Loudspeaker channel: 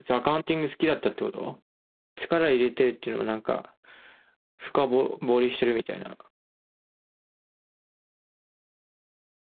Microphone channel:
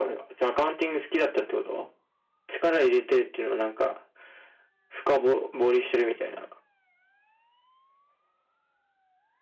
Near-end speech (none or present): none